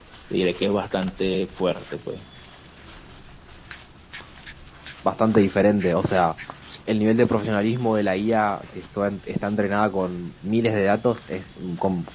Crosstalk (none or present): none